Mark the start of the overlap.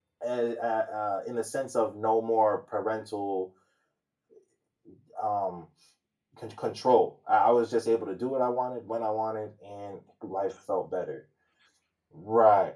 none

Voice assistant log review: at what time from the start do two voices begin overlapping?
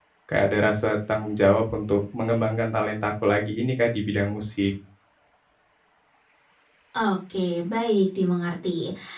none

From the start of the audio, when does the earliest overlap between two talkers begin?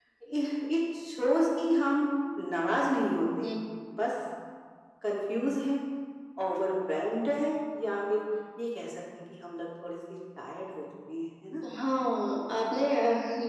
none

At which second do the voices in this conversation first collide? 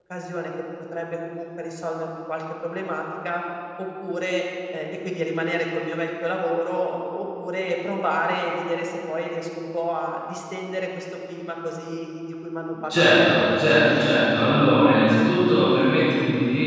12.9 s

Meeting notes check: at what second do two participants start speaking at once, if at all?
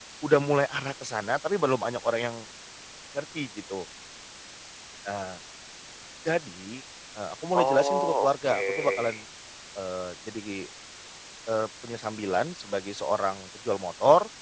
7.5 s

